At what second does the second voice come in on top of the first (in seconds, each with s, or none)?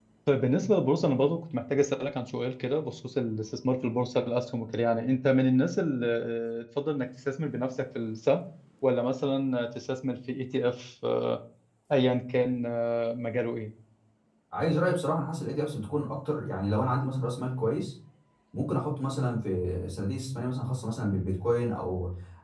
none